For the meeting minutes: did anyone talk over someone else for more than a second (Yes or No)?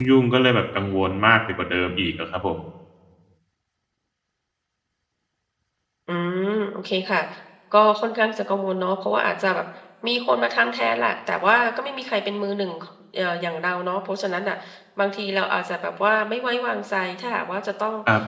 No